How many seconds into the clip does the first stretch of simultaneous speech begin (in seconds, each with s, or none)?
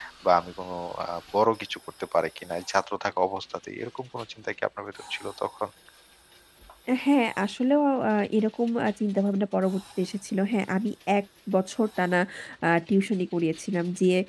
none